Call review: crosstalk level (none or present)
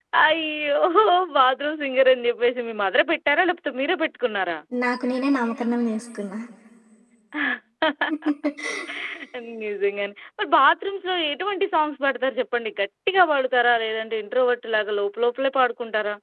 none